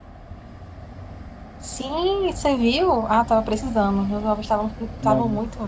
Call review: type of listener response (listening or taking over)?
listening